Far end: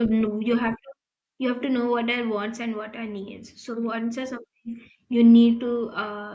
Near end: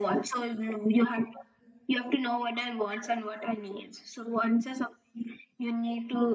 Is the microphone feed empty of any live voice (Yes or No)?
Yes